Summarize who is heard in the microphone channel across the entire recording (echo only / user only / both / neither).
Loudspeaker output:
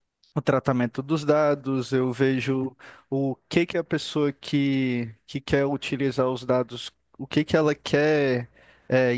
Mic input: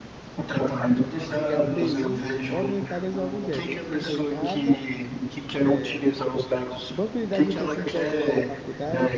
both